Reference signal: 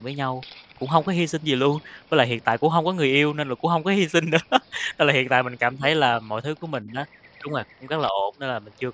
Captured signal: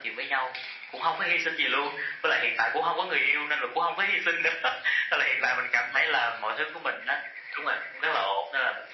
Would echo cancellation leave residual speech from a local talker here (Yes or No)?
No